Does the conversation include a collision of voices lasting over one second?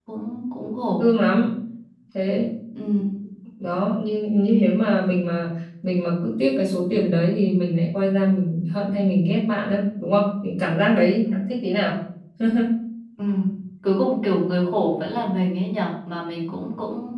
No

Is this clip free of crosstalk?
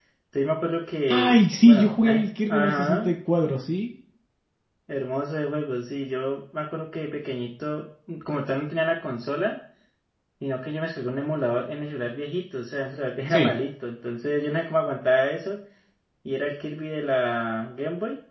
No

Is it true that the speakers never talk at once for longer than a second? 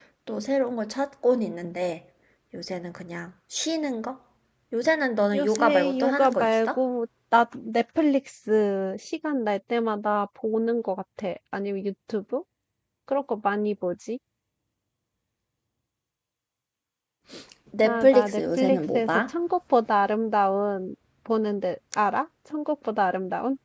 No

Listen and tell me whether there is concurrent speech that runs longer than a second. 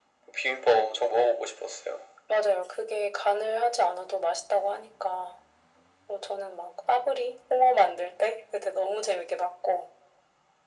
No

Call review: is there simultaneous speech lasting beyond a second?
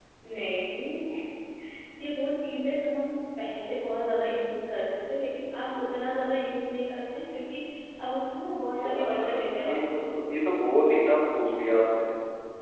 Yes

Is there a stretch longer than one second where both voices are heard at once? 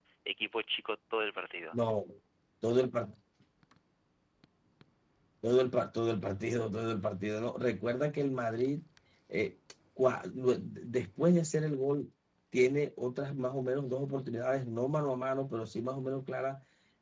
No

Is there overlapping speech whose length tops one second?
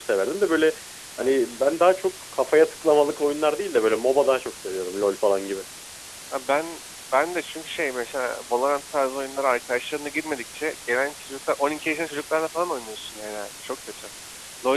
No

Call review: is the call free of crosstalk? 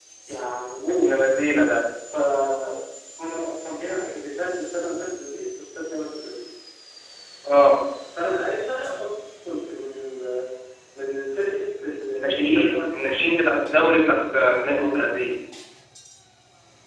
No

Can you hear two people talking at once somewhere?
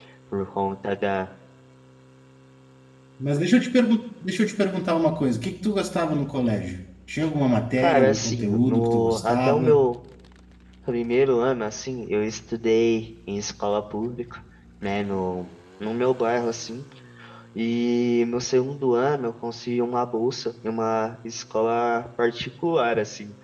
Yes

